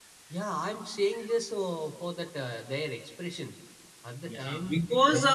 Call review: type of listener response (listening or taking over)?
taking over